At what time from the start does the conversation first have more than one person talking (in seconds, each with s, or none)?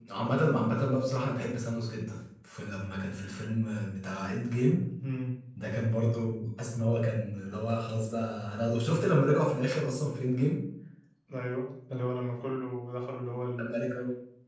none